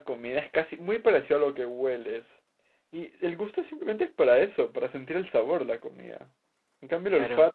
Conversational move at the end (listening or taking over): listening